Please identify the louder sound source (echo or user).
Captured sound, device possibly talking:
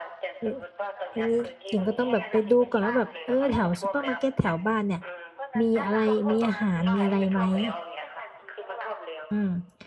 user